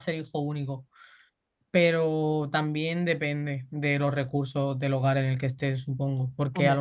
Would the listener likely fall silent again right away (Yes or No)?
Yes